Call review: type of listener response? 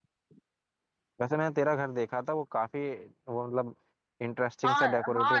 taking over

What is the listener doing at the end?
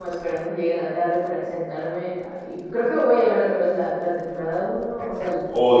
taking over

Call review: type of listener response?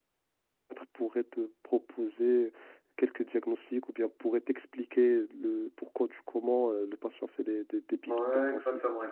taking over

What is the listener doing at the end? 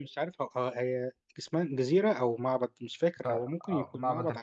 taking over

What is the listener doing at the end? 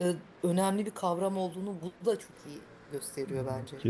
taking over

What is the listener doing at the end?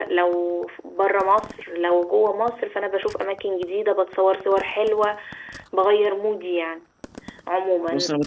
listening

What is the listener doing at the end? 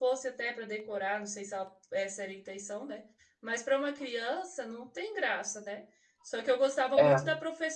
listening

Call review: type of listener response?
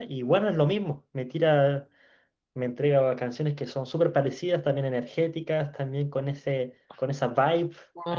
taking over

